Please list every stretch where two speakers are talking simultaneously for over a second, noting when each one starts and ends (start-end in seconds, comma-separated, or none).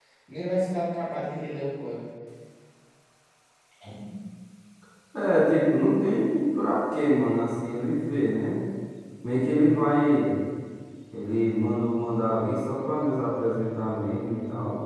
none